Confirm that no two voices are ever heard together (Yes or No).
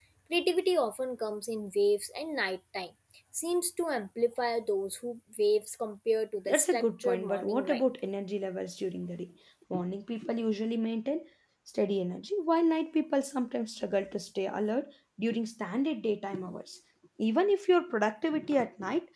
No